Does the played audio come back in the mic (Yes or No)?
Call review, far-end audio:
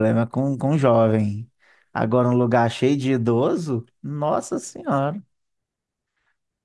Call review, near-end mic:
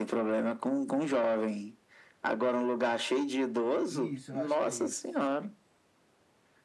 Yes